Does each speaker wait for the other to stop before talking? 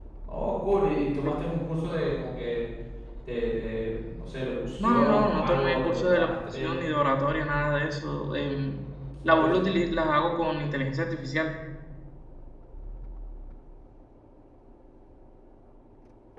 No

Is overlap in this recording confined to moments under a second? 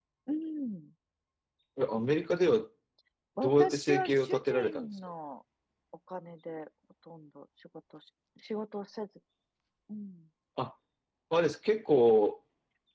No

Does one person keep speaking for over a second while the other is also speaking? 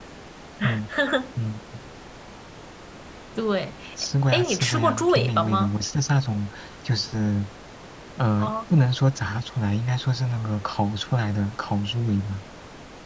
Yes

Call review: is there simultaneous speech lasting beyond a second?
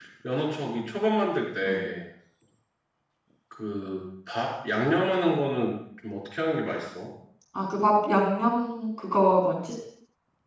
No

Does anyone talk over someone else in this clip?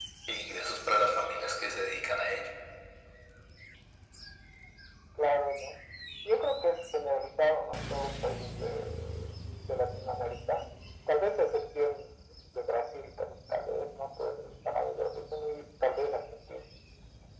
No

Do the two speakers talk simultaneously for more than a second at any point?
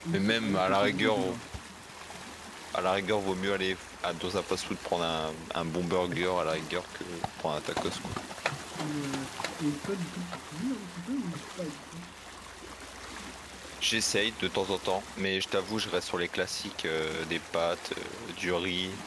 Yes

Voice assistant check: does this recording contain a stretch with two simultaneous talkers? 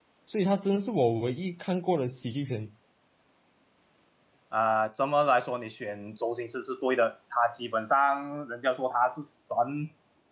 No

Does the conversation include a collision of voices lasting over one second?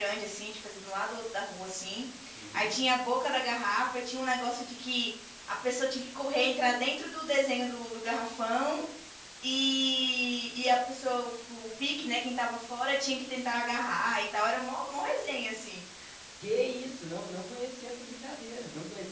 No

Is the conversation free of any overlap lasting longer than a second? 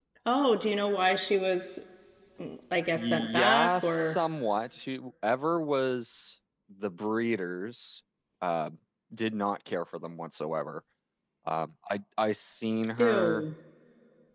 No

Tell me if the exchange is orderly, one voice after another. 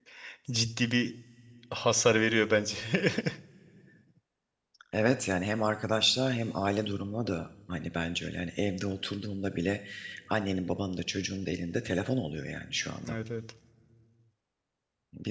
Yes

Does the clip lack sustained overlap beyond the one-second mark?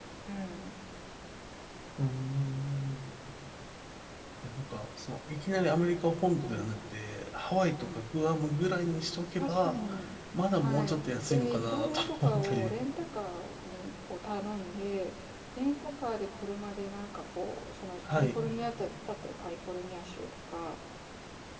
No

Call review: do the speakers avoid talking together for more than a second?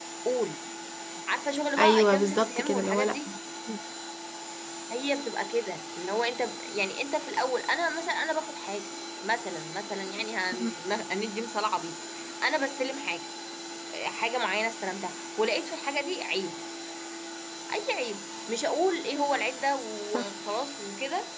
No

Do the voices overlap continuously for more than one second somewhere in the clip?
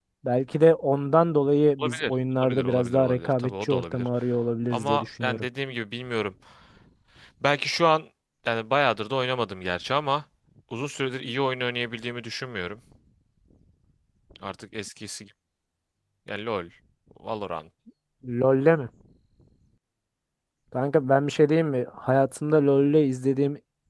Yes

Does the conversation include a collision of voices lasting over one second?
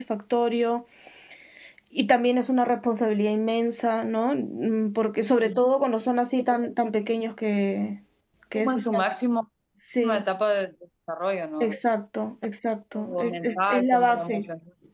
Yes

